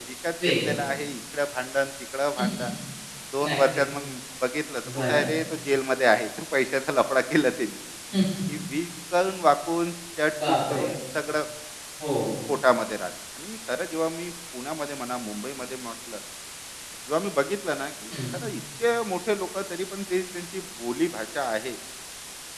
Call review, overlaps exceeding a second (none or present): none